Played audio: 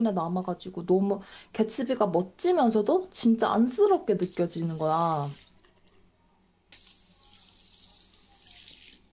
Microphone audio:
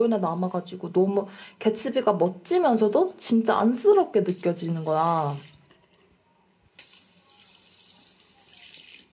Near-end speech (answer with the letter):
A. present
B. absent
B